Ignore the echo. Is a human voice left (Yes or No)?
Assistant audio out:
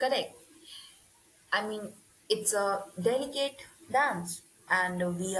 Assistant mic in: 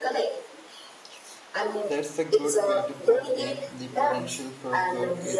Yes